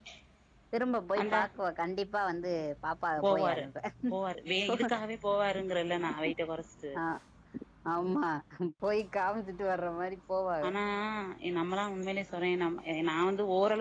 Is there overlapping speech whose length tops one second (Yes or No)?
No